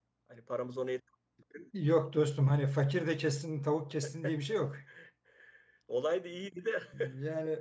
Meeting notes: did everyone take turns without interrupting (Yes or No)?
Yes